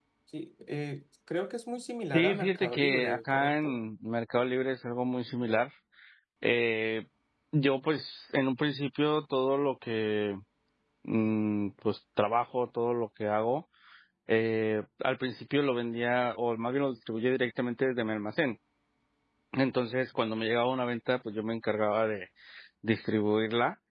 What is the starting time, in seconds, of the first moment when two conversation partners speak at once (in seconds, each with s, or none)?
2.1 s